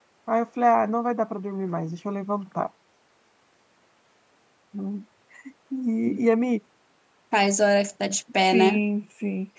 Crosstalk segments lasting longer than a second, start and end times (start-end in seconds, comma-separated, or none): none